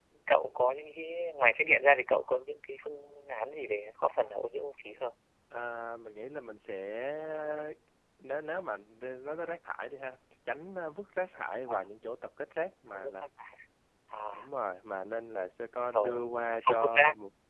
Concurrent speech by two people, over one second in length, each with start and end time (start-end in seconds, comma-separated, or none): none